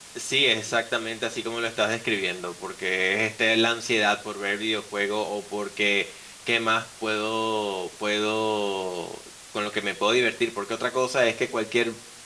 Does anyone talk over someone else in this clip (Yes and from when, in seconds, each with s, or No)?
No